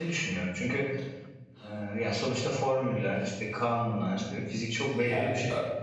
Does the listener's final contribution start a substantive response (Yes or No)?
Yes